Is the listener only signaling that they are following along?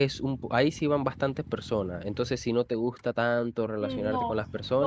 No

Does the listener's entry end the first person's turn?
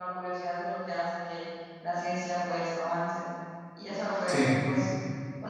No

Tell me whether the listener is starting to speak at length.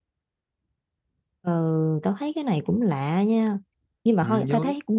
No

